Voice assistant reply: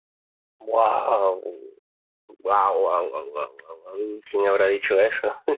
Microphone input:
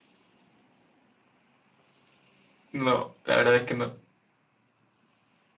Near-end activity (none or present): present